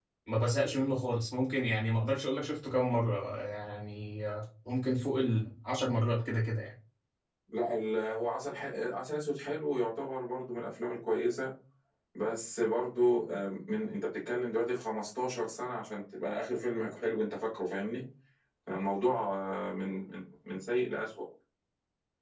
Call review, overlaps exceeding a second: none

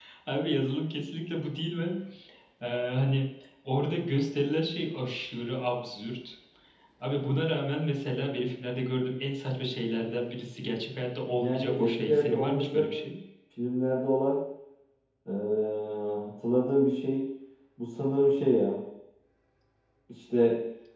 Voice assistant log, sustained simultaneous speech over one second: present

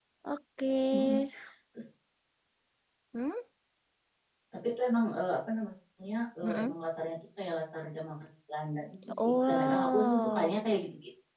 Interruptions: present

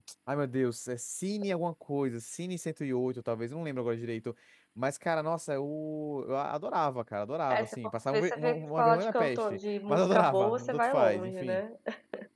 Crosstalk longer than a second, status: present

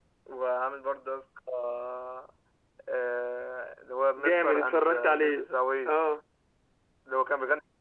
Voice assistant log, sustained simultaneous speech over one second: present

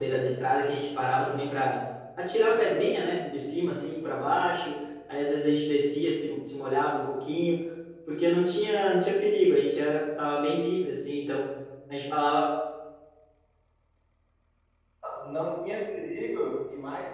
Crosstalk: none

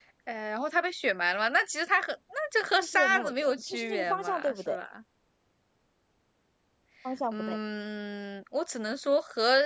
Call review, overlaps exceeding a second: present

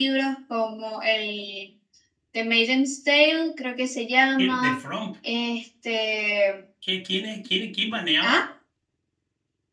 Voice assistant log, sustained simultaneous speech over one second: none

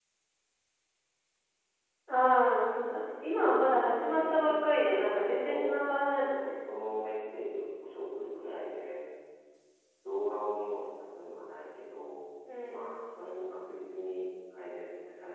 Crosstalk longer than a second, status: present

